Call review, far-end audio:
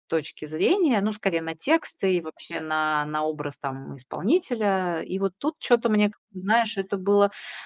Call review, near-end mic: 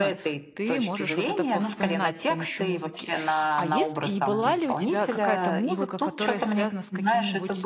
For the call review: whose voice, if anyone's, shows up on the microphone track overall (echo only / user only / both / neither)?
both